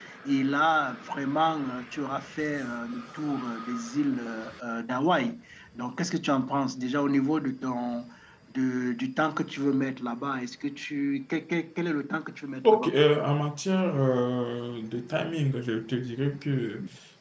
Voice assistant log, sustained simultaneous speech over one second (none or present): none